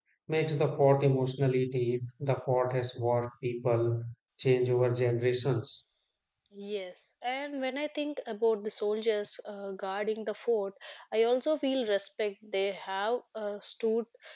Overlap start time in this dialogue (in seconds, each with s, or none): none